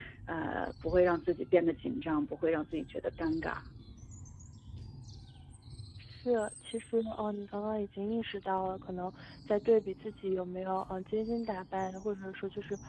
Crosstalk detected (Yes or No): No